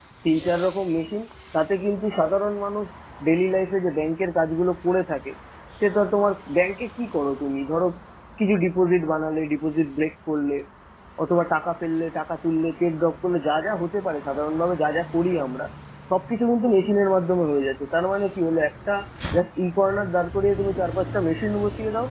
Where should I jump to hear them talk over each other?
none

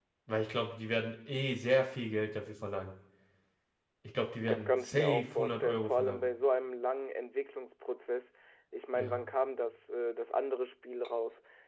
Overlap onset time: 4.4 s

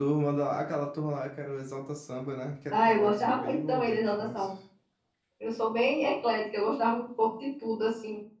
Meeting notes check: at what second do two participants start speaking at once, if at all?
2.7 s

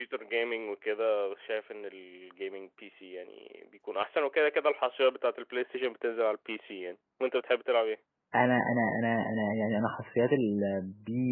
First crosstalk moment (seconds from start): none

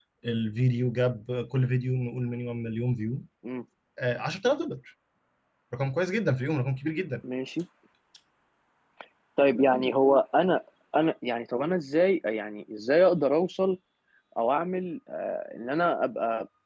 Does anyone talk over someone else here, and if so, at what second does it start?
none

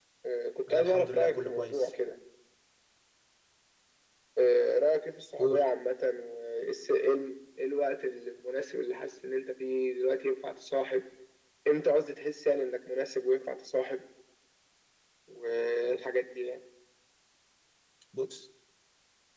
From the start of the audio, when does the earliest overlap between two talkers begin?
0.7 s

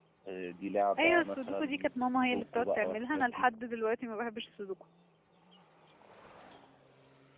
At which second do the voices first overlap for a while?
1.0 s

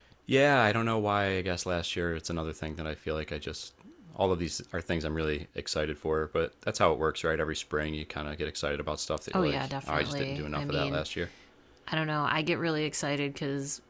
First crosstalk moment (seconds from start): 9.3 s

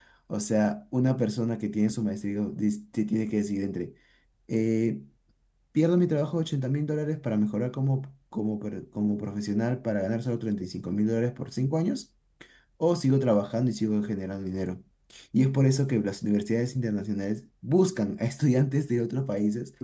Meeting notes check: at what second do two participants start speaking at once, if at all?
none

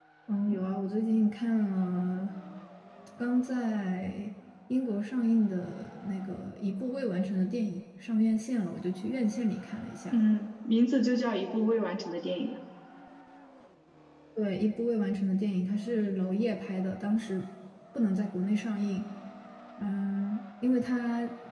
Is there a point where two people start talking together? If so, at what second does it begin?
none

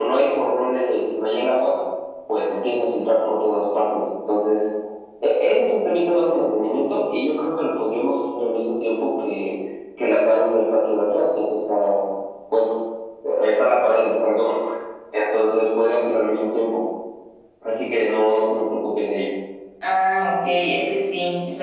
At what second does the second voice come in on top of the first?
none

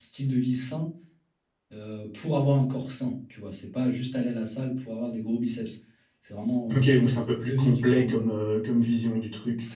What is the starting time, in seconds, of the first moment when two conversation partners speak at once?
6.7 s

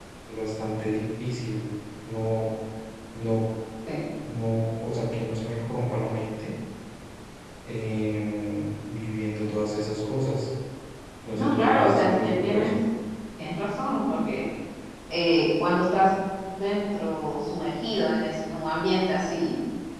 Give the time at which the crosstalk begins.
11.3 s

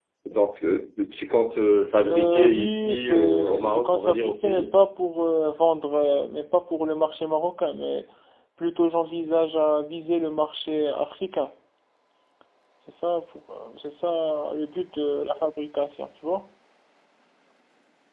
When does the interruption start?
2.0 s

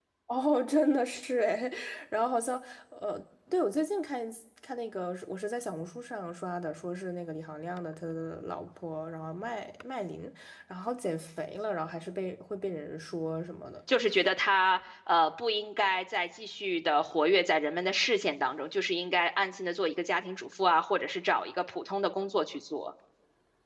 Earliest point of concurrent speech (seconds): none

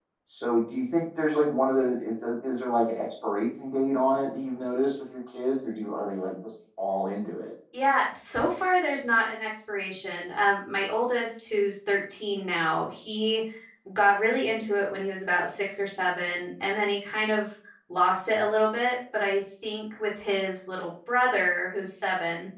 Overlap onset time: none

